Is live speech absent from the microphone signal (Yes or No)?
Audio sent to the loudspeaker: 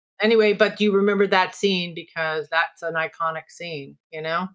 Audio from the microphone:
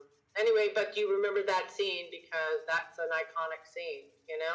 Yes